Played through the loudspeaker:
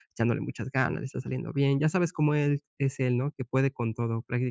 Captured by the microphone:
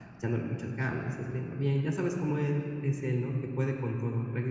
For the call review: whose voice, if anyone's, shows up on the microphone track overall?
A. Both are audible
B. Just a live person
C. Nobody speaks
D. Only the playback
D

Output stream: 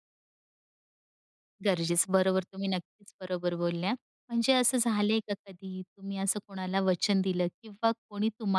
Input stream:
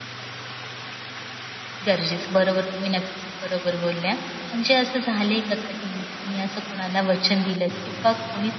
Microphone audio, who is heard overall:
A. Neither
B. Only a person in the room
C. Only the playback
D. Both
C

